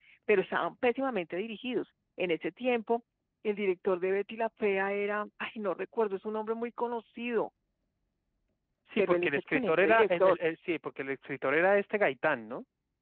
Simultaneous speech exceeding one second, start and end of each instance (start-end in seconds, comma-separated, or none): 9.0-10.3